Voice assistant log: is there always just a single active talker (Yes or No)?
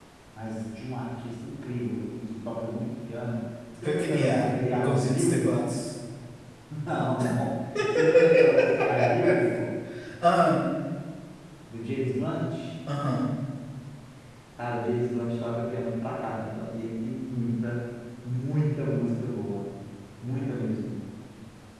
No